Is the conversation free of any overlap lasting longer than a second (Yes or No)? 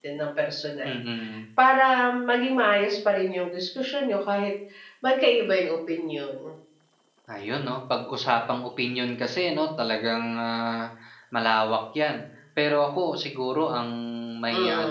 Yes